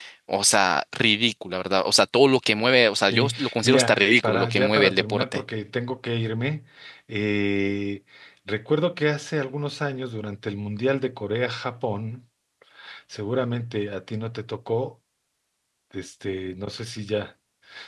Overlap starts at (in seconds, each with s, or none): 3.1 s